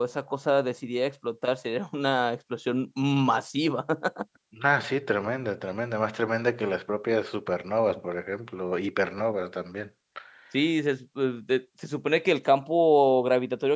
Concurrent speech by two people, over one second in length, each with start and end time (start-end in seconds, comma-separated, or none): none